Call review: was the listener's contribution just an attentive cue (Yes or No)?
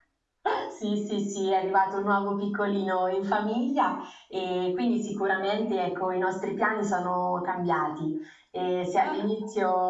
Yes